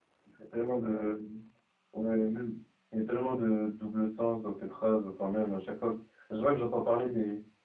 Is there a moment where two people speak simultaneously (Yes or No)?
No